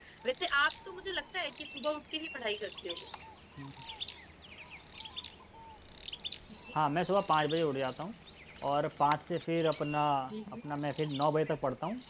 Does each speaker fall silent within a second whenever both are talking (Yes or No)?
Yes